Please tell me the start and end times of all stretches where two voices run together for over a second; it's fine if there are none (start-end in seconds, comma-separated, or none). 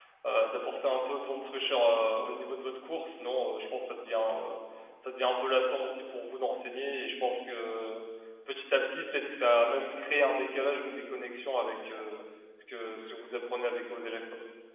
none